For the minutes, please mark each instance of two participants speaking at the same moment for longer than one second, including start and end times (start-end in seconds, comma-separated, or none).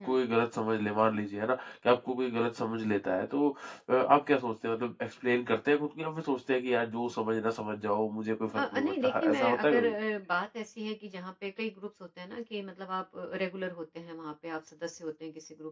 8.6-9.9